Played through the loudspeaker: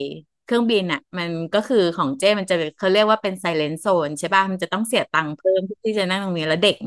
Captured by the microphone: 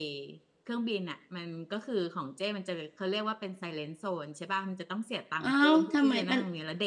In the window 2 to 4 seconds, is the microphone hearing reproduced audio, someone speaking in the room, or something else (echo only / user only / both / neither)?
echo only